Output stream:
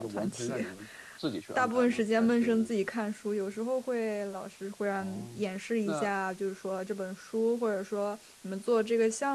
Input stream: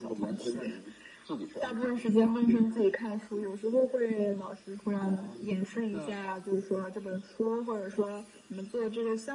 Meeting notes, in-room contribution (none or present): none